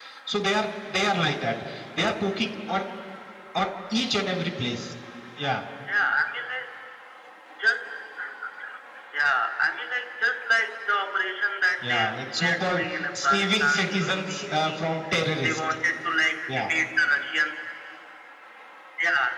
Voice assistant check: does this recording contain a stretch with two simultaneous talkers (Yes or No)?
Yes